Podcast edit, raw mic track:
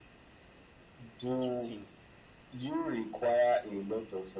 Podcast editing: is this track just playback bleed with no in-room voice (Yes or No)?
No